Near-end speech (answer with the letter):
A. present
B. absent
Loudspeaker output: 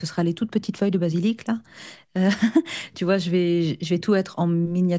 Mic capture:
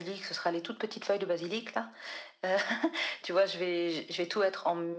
B